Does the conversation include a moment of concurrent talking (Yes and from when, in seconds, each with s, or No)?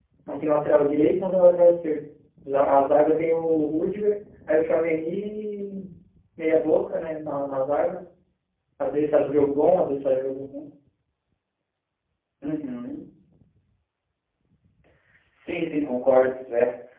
No